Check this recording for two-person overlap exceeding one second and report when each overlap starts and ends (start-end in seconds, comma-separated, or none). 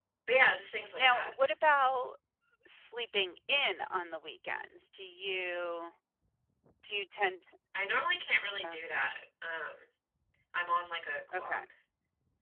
none